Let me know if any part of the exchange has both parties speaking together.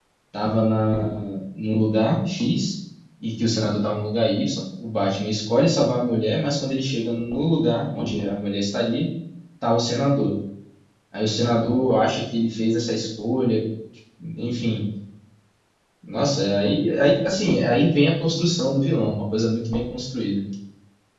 No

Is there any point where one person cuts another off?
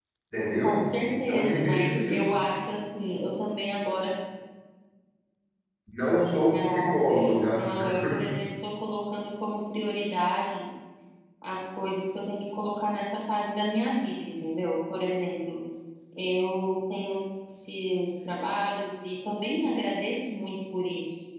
Yes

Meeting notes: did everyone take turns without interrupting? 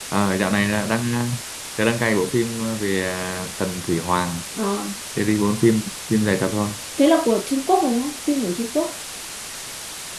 Yes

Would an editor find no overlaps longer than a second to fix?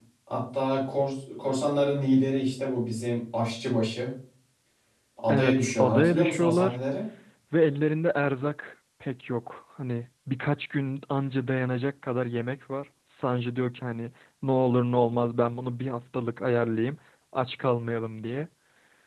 No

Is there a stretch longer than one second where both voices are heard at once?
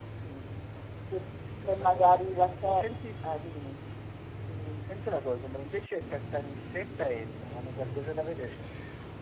Yes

